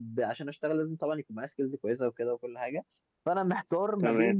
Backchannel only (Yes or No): Yes